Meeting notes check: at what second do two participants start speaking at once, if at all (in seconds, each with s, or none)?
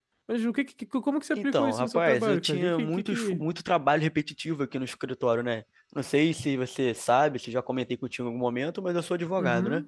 1.4 s